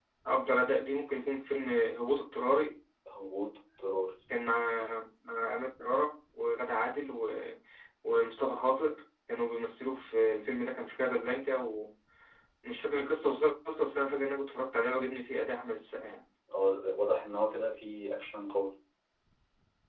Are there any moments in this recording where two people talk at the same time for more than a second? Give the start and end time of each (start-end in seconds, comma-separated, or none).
none